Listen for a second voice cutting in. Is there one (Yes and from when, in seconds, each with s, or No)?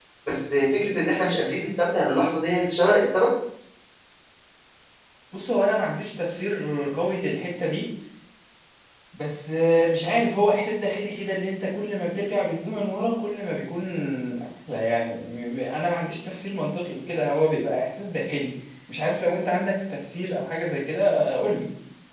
No